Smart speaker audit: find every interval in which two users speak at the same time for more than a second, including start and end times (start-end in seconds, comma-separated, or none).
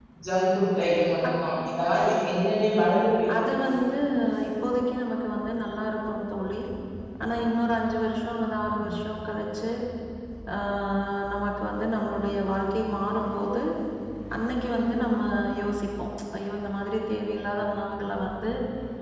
none